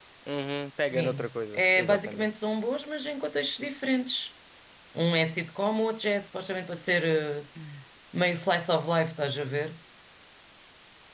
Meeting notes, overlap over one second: present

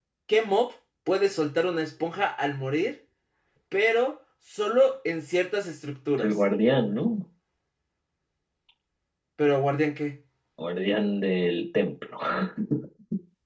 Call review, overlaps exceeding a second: none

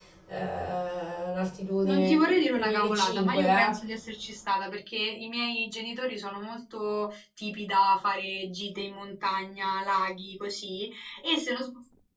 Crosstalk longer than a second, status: present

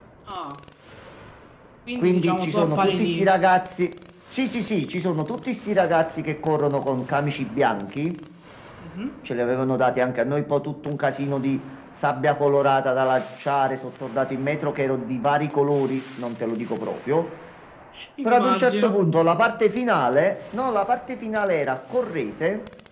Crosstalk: present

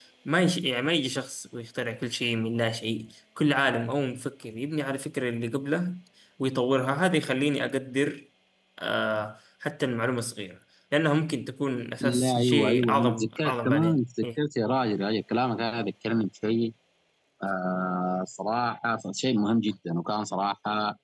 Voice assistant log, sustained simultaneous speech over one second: present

